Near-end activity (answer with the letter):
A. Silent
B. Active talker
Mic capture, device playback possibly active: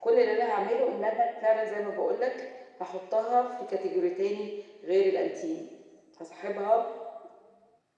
A